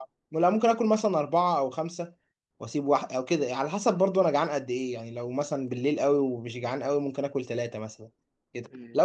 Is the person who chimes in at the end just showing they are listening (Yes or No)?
Yes